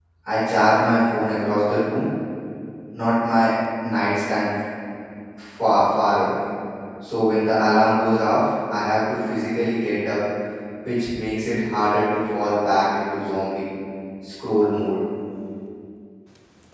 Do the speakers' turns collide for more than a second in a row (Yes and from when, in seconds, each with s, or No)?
No